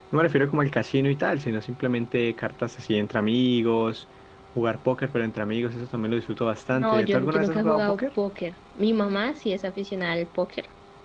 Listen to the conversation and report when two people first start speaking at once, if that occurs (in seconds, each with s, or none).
6.7 s